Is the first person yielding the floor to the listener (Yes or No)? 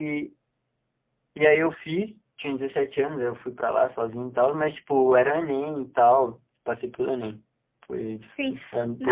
Yes